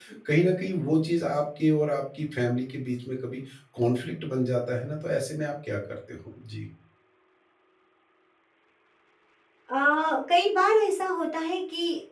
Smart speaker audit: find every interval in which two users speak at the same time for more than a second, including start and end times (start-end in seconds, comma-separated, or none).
none